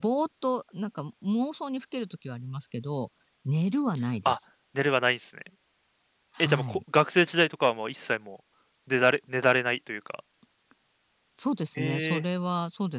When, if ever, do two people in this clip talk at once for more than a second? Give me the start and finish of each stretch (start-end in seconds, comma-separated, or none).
none